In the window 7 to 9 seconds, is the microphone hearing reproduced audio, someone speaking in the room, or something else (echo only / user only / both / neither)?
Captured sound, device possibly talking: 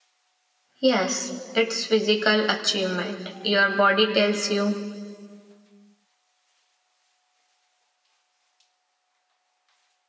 neither